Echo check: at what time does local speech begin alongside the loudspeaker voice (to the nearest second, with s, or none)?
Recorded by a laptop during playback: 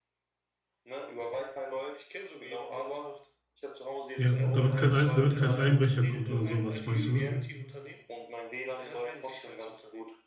4 s